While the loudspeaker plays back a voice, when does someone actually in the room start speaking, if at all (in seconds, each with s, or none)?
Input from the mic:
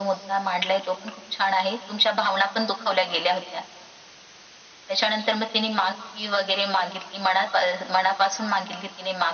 none